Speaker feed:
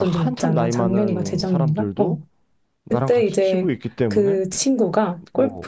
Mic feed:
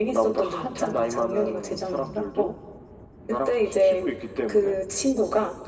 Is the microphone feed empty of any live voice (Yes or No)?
Yes